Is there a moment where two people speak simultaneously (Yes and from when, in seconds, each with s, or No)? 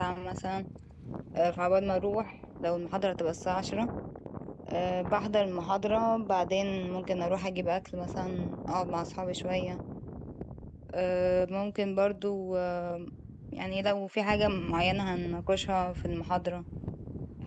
No